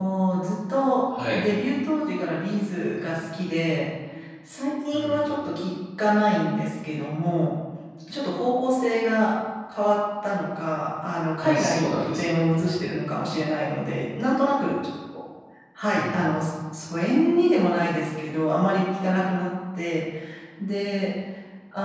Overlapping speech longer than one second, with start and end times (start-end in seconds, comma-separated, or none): 11.4-12.7